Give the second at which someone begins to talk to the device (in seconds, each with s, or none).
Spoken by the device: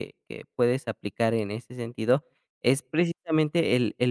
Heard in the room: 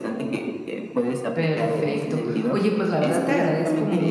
1.3 s